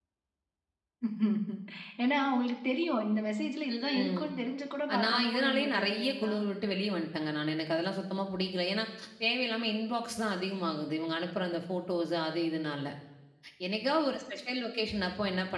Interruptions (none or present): present